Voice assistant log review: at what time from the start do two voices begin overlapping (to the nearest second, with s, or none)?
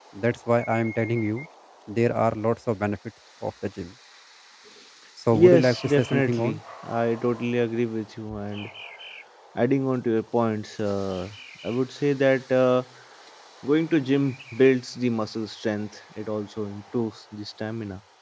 5 s